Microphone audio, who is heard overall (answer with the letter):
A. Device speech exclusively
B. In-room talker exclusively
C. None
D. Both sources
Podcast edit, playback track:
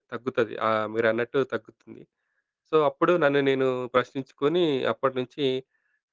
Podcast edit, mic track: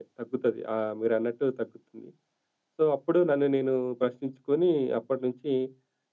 A